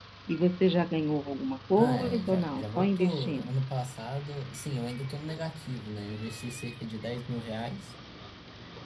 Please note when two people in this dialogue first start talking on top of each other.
1.8 s

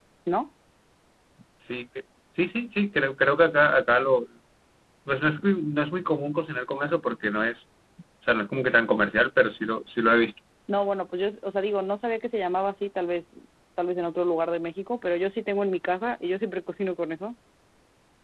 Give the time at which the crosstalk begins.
none

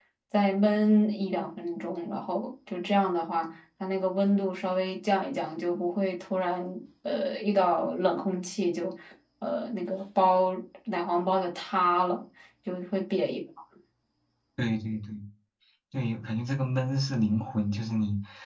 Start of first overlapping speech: none

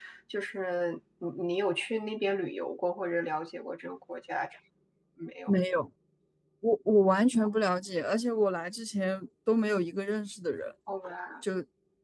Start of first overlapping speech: none

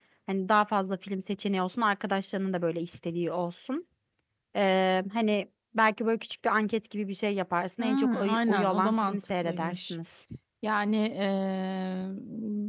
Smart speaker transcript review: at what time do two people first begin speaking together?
7.8 s

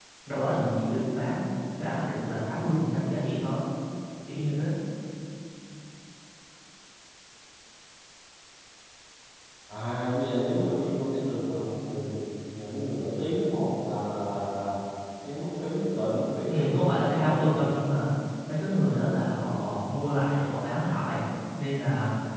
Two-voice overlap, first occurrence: 16.5 s

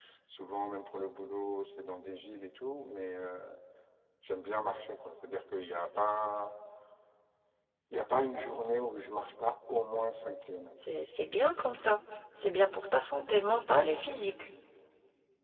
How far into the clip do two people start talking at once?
none

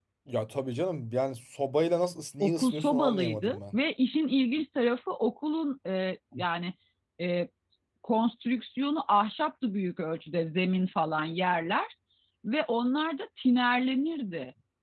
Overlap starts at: 2.4 s

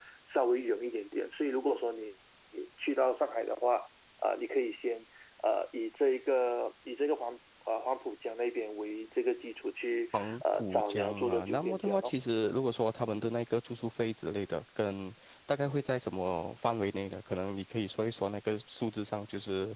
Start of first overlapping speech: 10.1 s

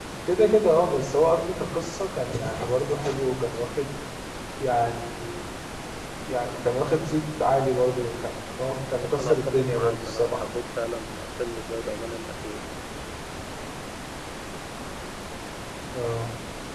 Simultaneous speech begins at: 9.2 s

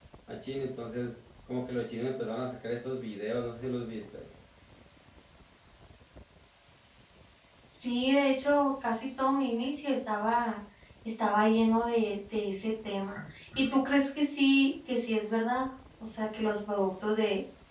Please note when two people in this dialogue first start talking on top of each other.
none

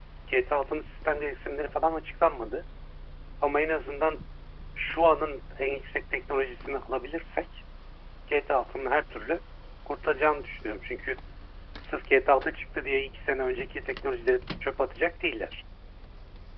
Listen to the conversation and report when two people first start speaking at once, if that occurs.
none

